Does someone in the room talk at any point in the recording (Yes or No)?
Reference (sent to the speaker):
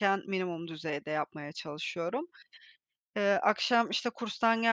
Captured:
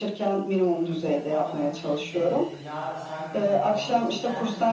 Yes